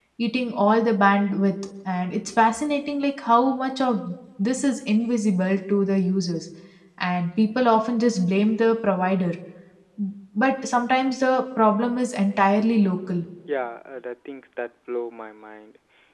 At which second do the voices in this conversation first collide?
none

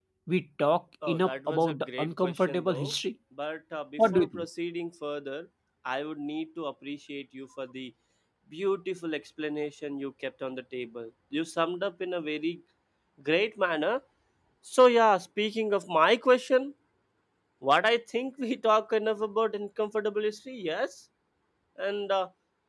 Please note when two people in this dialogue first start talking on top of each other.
1.1 s

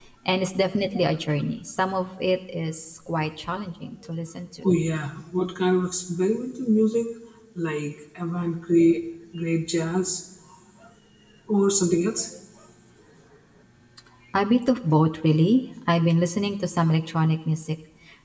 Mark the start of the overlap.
none

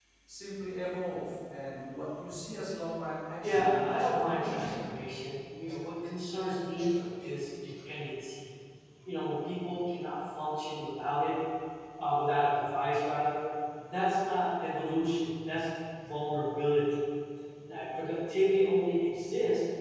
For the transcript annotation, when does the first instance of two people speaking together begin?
3.4 s

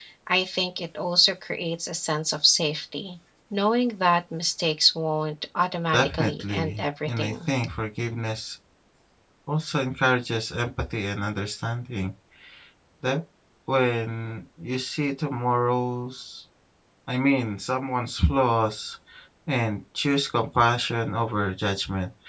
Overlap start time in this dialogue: 5.9 s

